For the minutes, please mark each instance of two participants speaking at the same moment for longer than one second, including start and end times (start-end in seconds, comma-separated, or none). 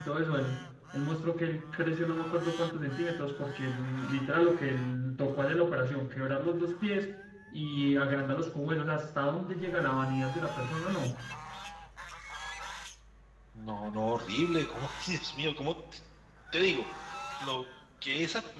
none